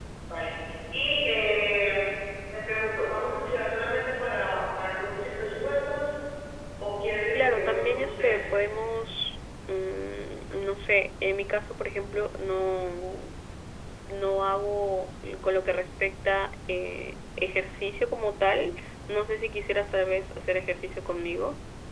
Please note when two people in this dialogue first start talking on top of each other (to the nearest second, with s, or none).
7 s